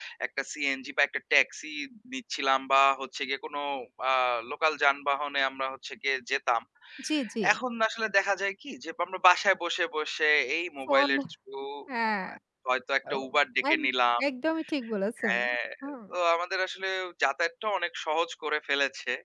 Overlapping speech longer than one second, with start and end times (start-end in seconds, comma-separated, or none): none